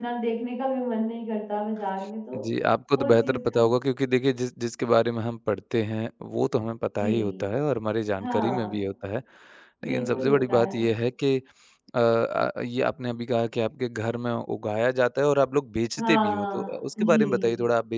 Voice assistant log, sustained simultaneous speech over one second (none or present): present